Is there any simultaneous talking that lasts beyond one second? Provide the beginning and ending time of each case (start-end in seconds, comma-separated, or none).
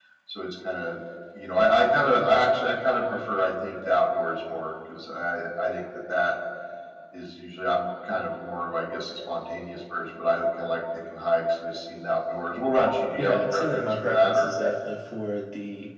13.2-14.5